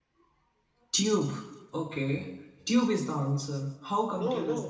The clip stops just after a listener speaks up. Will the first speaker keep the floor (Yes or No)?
No